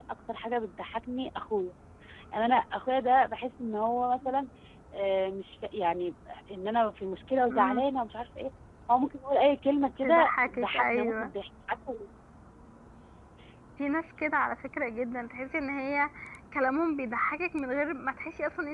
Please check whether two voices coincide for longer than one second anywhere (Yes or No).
Yes